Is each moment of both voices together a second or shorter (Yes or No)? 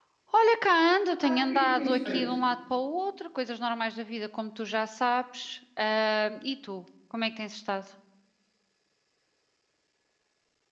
No